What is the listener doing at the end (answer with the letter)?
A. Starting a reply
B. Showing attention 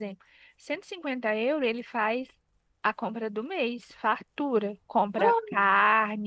B